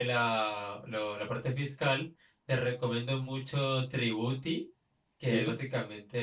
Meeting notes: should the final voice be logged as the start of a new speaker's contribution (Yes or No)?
No